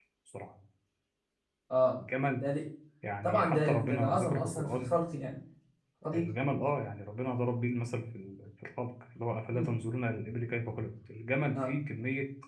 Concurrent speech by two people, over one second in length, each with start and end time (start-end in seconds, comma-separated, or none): 3.2-4.9